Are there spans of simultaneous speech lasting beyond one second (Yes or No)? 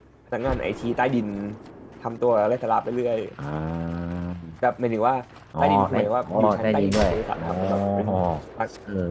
Yes